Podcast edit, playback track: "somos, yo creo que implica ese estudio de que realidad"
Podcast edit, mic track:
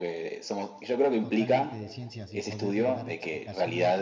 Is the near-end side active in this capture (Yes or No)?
Yes